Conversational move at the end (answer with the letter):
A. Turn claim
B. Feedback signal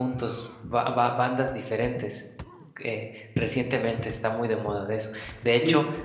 B